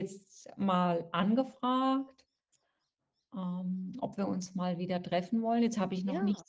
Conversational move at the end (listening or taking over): listening